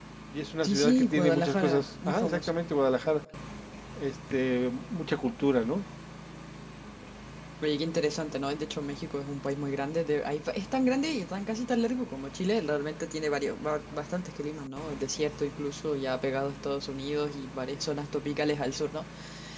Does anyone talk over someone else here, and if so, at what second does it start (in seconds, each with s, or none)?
0.6 s